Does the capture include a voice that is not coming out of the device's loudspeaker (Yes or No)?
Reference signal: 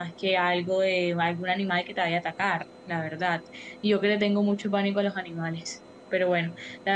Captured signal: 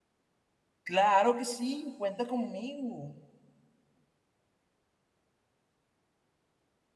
Yes